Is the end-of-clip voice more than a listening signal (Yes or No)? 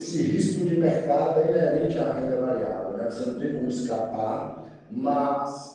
No